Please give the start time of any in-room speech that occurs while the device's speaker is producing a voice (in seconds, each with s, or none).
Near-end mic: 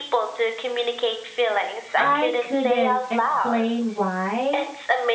2.0 s